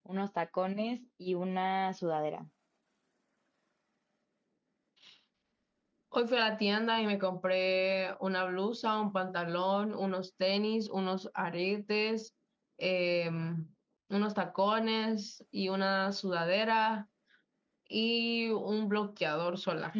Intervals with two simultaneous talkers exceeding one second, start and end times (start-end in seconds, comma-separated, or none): none